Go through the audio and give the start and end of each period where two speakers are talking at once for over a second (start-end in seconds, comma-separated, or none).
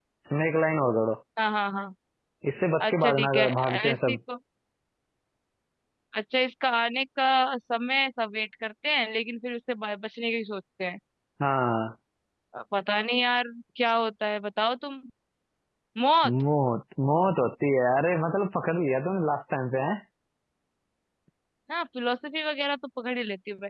2.8-4.2